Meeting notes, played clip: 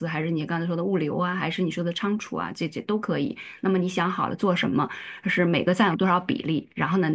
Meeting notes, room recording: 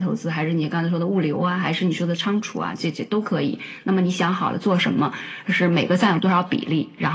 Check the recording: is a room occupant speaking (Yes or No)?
No